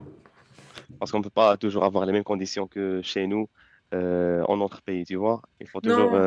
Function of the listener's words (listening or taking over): listening